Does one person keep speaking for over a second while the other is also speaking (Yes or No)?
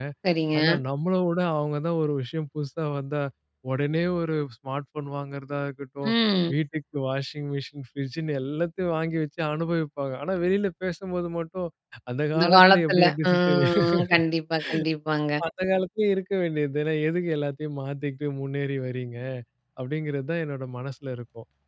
Yes